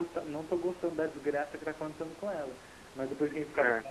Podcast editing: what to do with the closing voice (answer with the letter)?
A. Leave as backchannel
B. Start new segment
A